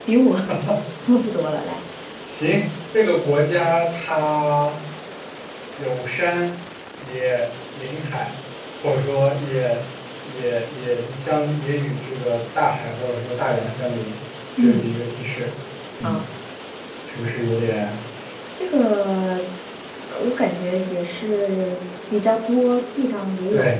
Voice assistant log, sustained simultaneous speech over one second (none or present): none